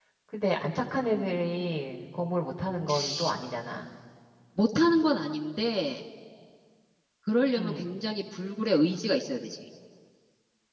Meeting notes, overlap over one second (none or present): none